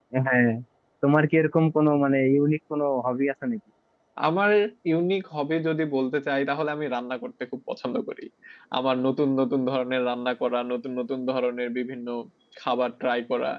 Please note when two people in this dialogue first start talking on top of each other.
none

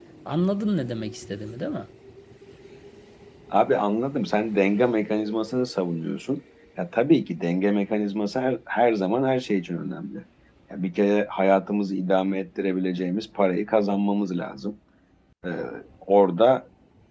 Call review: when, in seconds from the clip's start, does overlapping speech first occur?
none

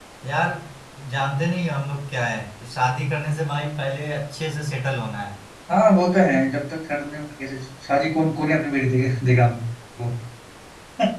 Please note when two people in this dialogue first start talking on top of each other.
none

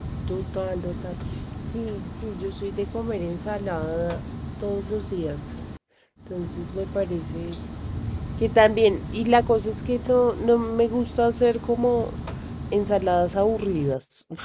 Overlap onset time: none

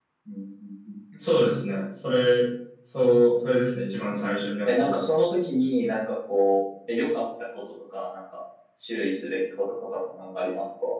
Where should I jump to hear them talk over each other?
4 s

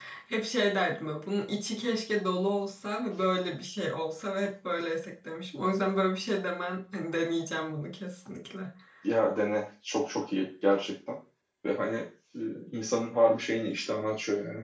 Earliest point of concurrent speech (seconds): none

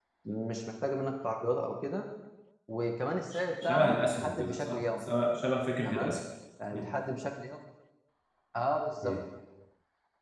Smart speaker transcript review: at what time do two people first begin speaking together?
3 s

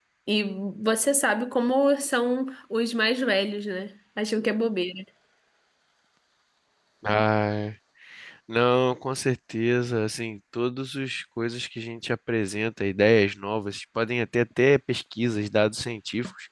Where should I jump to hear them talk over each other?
none

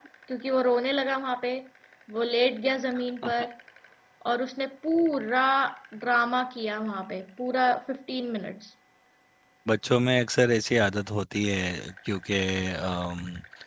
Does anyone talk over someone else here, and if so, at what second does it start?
none

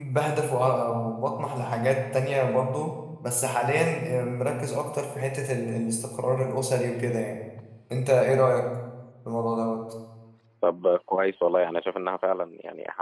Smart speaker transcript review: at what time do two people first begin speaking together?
none

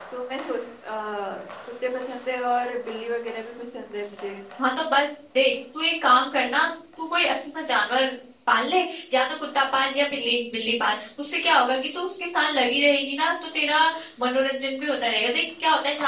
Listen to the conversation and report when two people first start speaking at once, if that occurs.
none

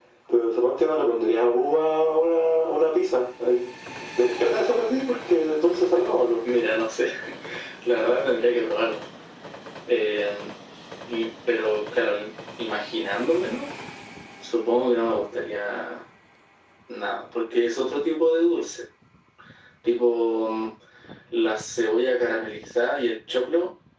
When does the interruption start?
none

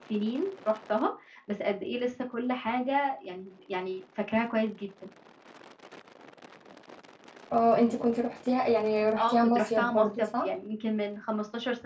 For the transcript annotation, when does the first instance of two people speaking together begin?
9 s

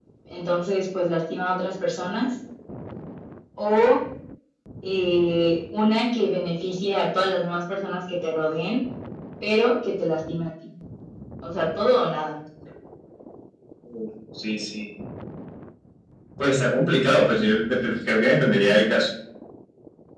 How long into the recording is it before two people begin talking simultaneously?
none

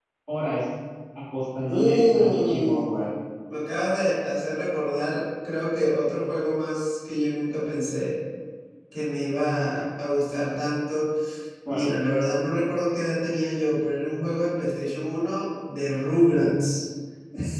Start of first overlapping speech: 2 s

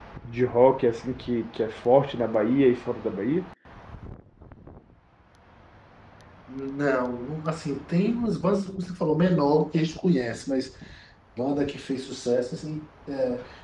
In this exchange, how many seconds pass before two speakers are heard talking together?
none

